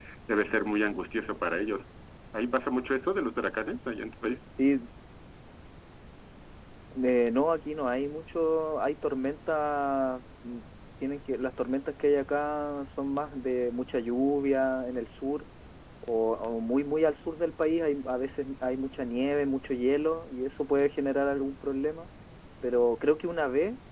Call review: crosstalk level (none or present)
none